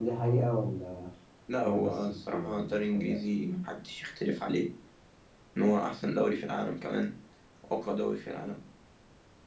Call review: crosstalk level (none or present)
present